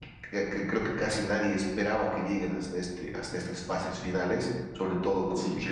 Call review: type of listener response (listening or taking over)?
listening